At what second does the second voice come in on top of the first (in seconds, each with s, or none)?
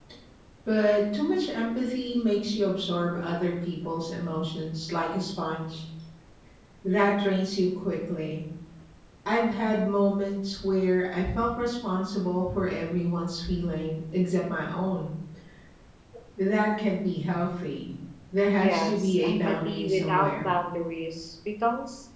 18.5 s